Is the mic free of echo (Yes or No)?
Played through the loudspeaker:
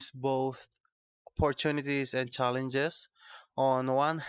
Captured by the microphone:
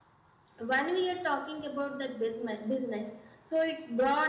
Yes